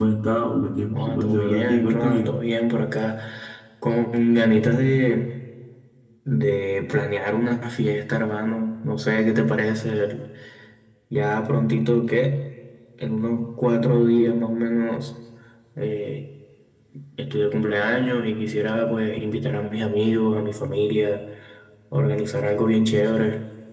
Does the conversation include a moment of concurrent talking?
Yes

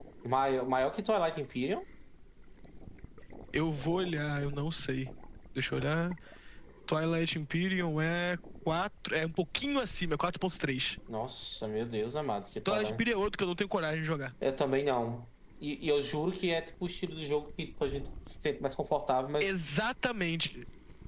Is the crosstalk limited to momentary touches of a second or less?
Yes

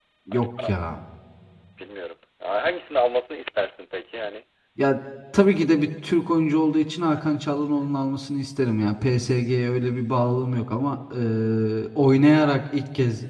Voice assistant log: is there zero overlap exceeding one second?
Yes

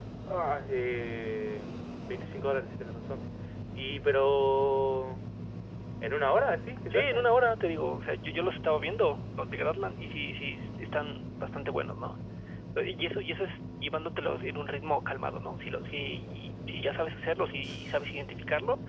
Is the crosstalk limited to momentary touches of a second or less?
Yes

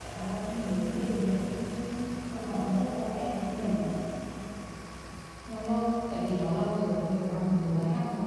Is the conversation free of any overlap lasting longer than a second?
Yes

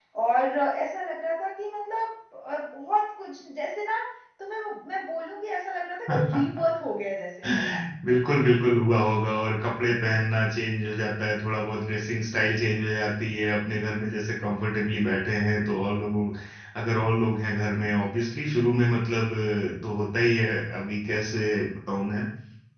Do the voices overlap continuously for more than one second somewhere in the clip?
No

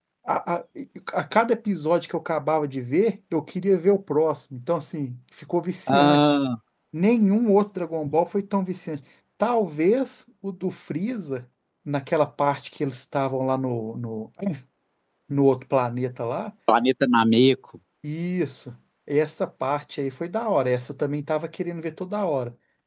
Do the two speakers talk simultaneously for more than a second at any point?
No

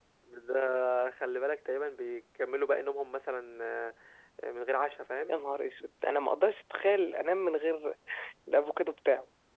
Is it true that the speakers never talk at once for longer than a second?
Yes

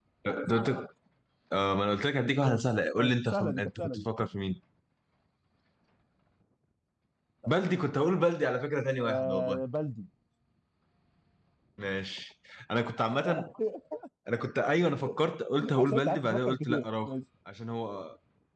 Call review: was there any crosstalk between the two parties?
Yes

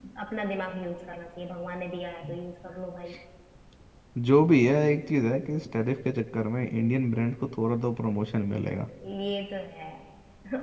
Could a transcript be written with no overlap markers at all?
Yes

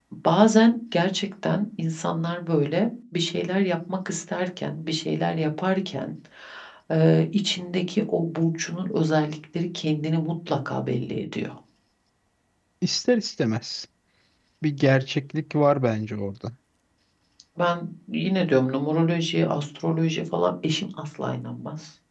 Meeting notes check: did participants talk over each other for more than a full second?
No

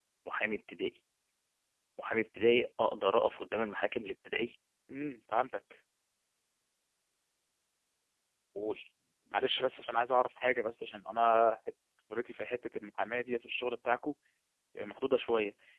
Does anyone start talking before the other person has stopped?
No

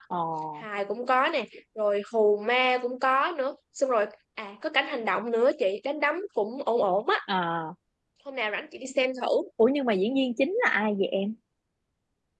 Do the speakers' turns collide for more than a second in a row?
No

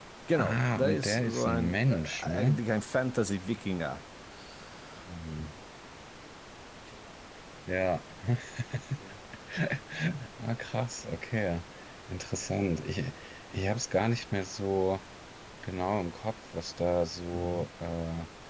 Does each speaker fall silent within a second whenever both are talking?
No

